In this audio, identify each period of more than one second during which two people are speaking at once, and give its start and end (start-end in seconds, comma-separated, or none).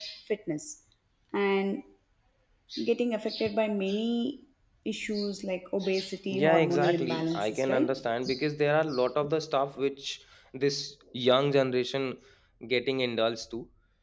6.4-7.9